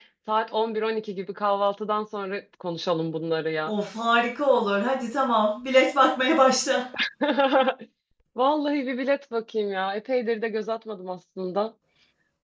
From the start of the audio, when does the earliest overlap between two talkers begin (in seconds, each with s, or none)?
none